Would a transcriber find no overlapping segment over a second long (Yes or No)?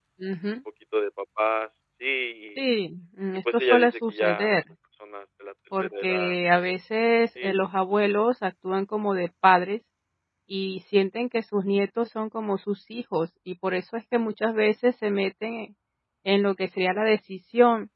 No